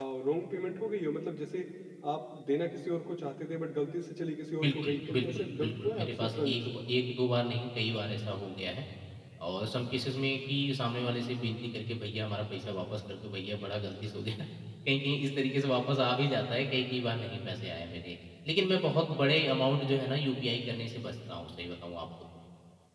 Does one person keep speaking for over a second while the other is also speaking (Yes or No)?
Yes